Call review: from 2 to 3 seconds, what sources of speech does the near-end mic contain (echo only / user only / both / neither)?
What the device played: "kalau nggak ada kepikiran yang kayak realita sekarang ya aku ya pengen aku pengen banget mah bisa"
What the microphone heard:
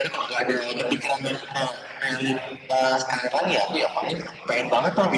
echo only